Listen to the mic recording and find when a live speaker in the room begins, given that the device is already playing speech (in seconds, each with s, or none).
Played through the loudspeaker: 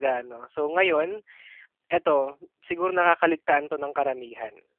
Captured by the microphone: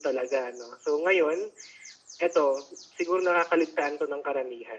none